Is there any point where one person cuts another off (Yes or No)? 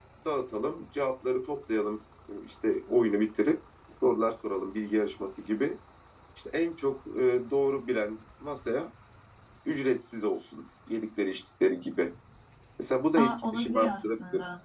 Yes